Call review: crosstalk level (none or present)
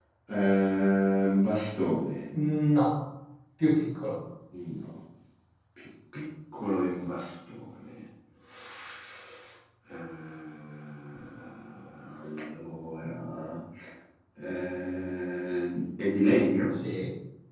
none